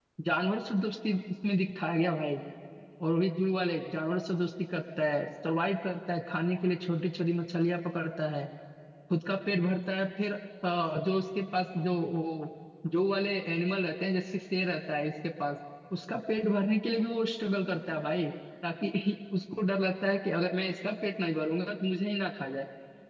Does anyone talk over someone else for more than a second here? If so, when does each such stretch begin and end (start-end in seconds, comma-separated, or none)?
none